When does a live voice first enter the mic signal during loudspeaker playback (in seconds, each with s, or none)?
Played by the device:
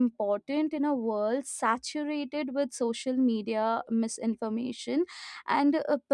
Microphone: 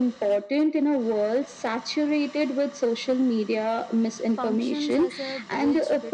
4.3 s